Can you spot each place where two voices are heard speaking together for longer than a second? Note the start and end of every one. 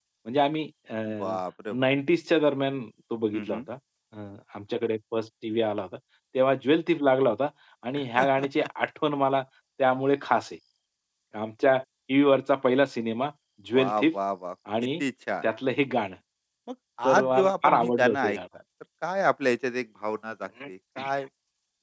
17.1-18.4

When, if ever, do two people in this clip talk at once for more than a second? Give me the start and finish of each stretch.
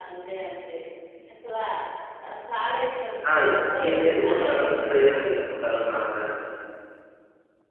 3.9-5.3

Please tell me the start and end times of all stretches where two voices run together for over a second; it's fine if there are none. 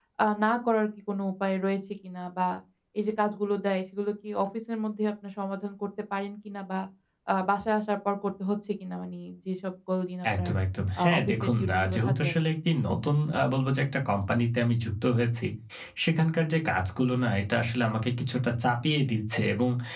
11.0-12.3

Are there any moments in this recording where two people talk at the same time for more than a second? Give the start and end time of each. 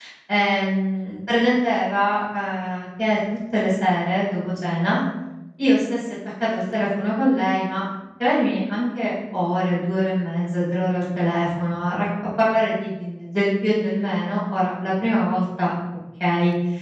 none

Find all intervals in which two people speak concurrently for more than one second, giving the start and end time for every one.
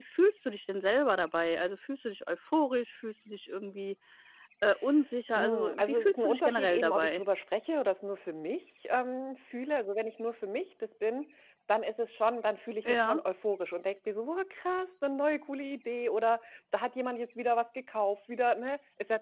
5.3-7.2

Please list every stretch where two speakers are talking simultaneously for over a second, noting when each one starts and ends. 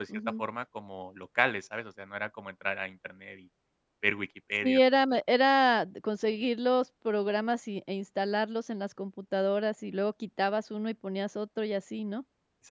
none

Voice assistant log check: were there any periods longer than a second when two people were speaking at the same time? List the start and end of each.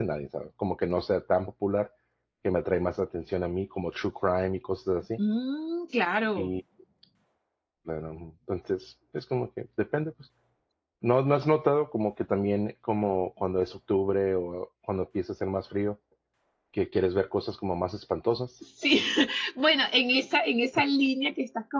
none

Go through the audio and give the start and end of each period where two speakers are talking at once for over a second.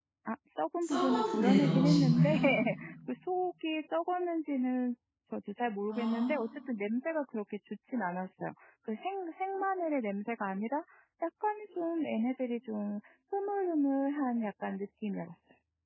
0.8-2.4

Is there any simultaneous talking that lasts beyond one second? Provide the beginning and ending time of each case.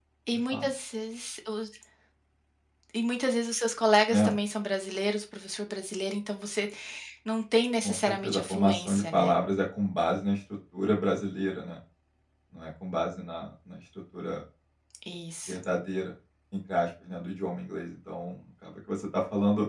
7.8-9.3

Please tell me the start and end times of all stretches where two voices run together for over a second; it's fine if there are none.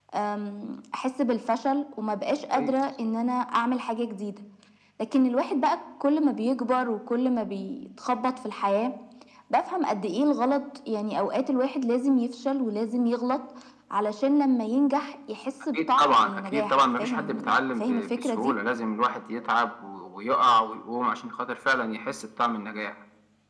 15.7-18.5

